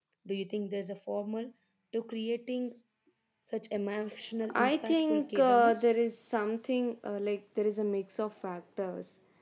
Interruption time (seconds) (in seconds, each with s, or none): 4.4 s